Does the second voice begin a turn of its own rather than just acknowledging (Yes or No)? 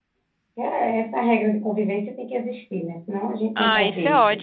Yes